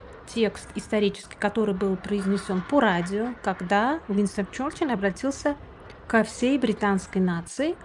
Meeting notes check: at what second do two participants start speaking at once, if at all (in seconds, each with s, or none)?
none